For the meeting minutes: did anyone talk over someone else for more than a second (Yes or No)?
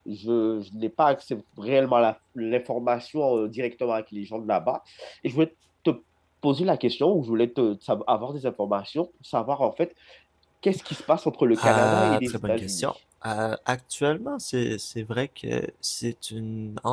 Yes